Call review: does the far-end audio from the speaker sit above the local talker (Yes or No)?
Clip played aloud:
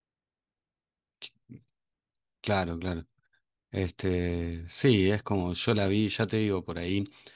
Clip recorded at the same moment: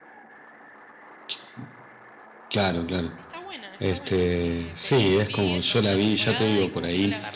Yes